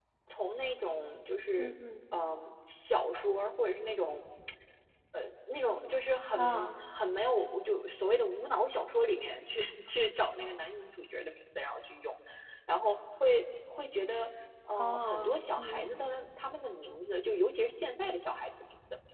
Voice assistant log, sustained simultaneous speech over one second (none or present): present